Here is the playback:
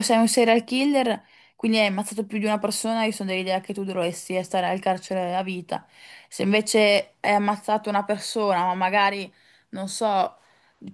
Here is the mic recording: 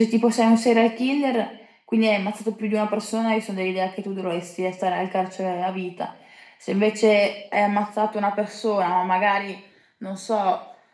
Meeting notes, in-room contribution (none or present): none